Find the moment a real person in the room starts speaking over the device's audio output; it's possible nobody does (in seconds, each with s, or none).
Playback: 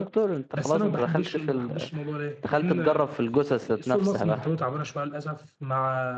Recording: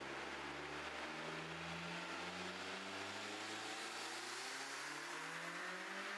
none